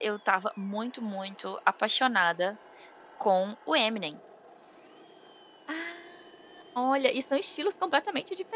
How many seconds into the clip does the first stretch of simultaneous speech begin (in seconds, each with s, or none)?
none